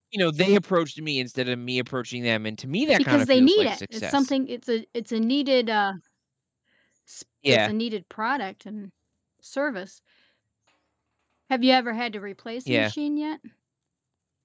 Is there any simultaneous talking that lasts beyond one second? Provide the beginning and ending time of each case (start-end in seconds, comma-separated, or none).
3.0-4.3